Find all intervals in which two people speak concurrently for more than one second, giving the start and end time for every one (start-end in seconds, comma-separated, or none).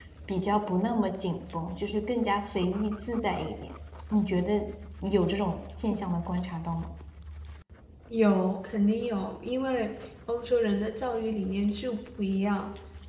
none